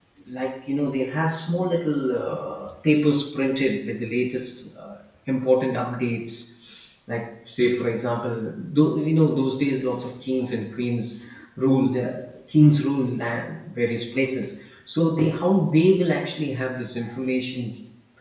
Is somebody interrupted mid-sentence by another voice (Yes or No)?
No